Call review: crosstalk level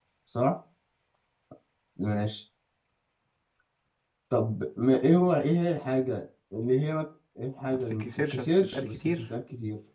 present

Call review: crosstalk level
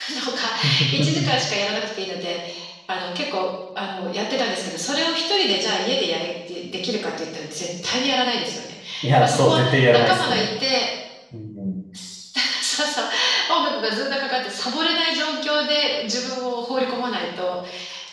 present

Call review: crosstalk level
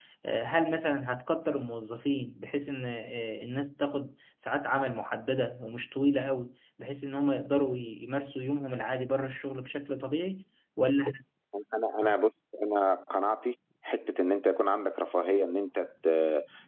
none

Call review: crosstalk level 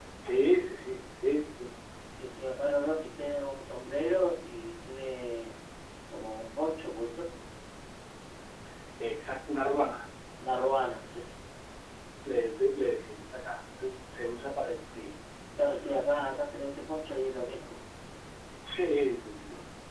none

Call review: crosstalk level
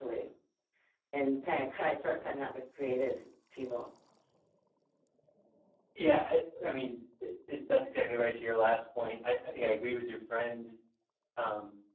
none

